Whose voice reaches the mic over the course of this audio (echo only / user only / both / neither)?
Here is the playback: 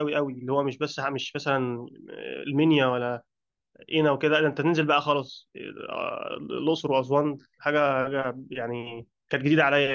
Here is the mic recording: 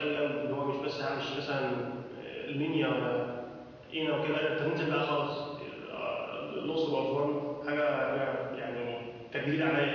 echo only